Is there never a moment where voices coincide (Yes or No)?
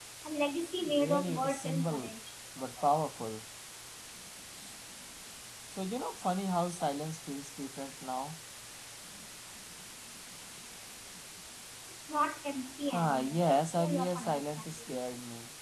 No